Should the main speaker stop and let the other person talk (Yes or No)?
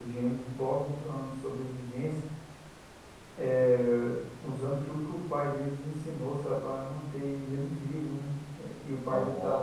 No